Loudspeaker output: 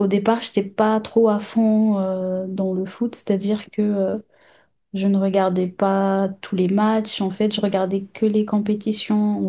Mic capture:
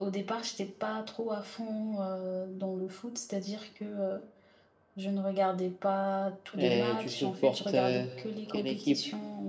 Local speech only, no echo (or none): Et tu supportes euh, quelle équipe?